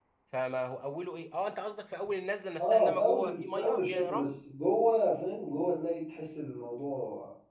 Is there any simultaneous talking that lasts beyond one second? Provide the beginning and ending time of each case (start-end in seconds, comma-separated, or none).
2.6-4.3